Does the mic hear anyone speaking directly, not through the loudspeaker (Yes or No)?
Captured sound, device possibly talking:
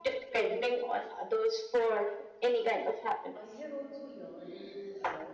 Yes